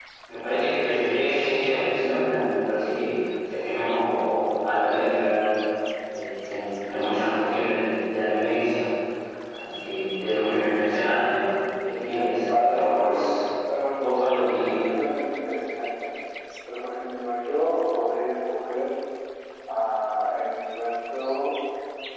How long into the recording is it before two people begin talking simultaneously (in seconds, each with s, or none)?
12.0 s